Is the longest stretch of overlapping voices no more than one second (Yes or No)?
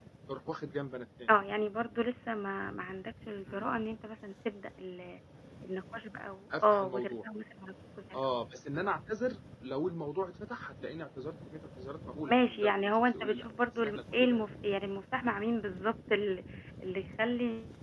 No